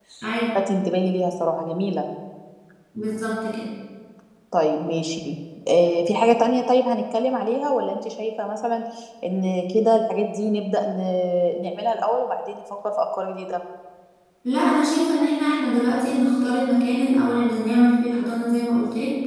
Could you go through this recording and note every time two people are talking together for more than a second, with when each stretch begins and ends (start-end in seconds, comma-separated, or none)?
none